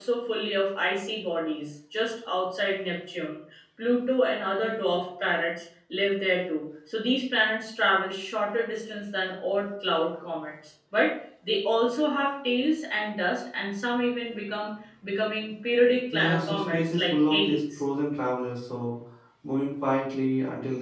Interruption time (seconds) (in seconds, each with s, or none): 16.1 s